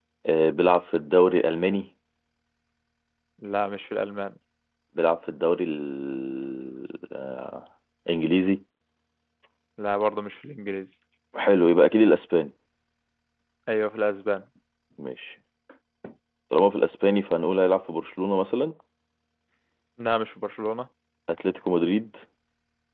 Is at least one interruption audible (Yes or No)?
No